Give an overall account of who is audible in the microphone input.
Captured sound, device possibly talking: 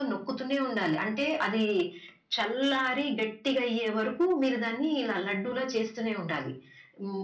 echo only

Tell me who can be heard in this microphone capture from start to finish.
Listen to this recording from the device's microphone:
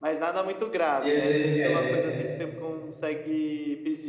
both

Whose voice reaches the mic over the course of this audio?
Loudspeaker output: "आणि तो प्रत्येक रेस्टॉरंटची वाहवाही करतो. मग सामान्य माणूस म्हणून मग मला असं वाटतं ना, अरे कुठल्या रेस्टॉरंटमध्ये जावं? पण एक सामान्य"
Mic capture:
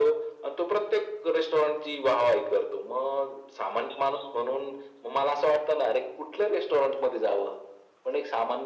echo only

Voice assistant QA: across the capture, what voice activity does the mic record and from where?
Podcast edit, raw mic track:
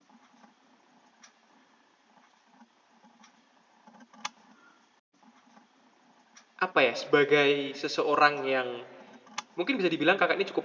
user only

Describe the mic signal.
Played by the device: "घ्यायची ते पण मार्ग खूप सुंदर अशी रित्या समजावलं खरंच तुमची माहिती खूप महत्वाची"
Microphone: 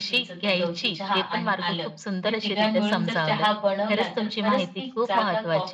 both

